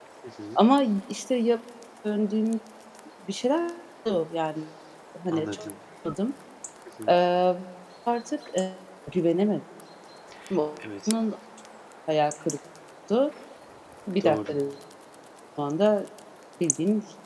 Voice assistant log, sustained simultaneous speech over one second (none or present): none